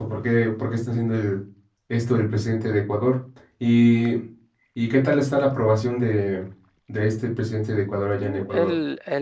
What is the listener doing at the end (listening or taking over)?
taking over